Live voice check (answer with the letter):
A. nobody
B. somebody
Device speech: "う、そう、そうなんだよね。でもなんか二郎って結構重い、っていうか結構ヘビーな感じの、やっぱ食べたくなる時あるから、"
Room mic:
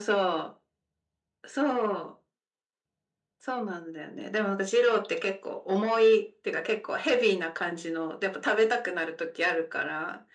A